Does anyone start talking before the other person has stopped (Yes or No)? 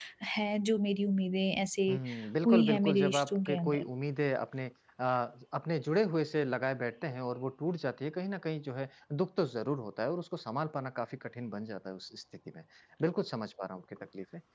Yes